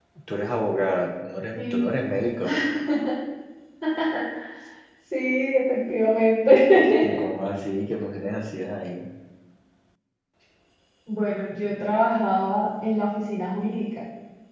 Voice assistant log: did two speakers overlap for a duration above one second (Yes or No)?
No